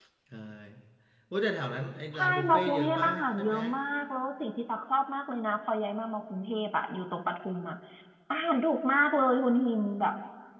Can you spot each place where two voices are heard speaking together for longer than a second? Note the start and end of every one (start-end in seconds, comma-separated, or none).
2.1-3.5